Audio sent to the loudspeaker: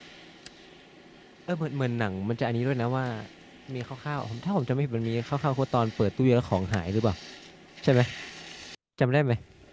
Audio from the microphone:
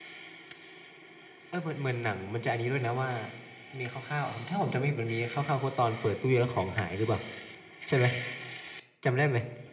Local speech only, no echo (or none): none